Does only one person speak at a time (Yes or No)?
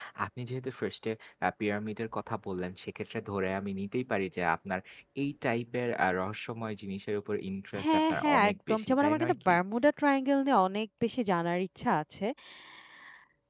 No